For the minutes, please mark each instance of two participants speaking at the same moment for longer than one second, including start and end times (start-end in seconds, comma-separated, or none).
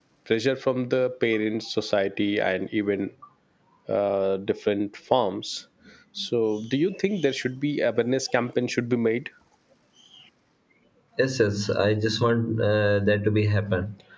none